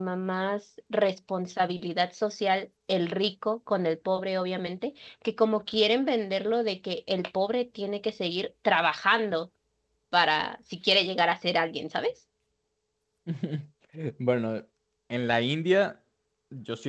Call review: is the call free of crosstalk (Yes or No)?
Yes